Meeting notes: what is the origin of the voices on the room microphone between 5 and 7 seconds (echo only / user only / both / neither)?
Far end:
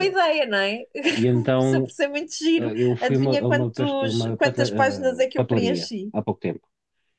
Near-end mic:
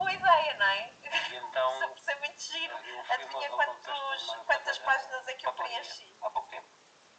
echo only